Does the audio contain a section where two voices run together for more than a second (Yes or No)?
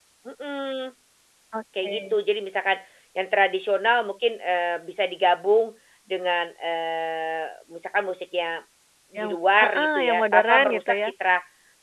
Yes